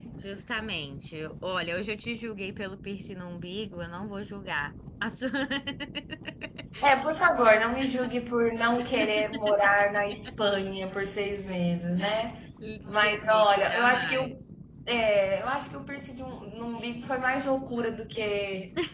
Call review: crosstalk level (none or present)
present